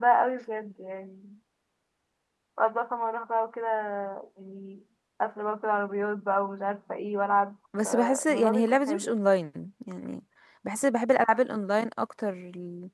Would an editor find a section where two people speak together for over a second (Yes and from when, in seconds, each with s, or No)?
Yes, from 7.7 s